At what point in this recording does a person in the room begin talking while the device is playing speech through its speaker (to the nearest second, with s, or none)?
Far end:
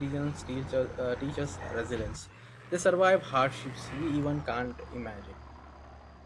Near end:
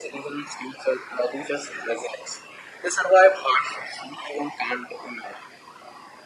none